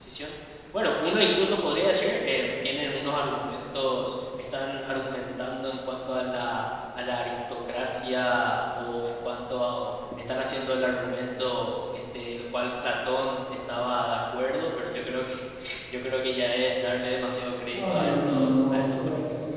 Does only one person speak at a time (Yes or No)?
No